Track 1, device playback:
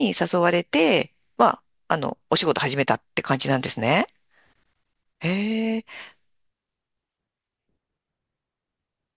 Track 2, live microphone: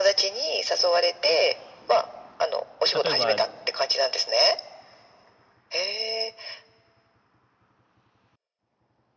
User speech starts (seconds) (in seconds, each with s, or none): 2.9 s